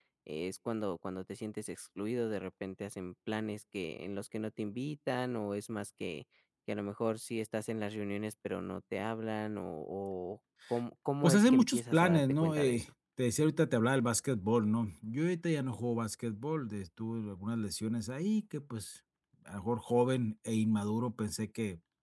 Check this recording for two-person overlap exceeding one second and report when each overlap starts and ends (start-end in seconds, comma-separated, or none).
11.2-12.9